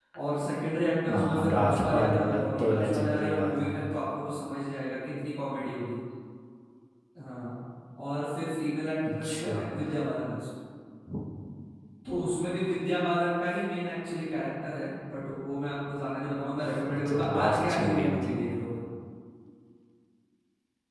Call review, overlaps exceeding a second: present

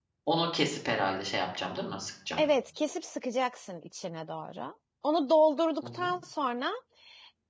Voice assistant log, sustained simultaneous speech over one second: none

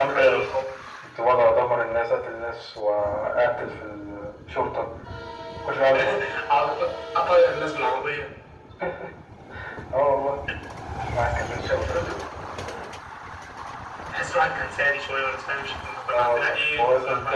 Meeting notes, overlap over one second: present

